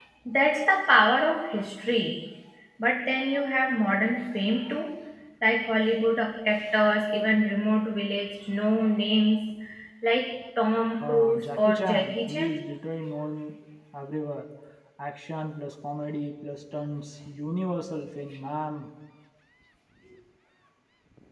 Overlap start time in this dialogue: 11.0 s

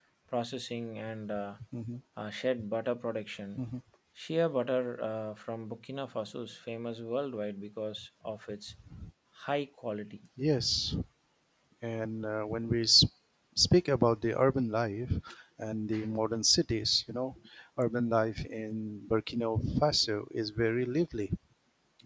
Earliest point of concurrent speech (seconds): none

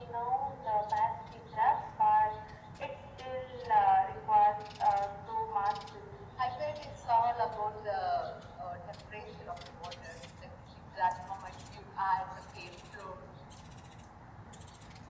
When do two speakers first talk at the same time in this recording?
none

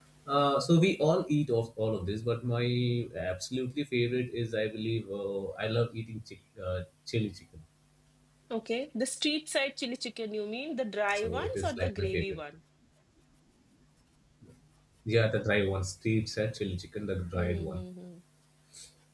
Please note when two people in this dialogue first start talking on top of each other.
11.1 s

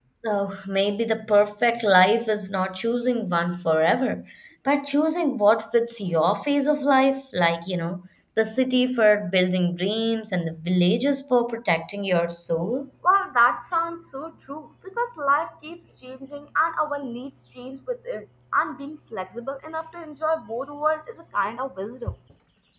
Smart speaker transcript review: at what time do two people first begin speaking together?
none

